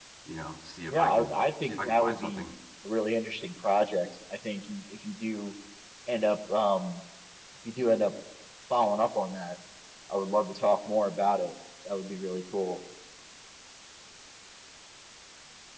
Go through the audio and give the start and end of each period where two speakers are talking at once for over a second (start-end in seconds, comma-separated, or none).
0.9-2.5